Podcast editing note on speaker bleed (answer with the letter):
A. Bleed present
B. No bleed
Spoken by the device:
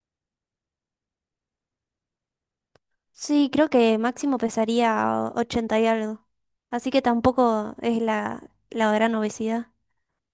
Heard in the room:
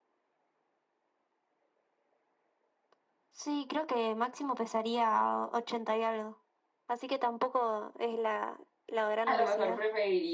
A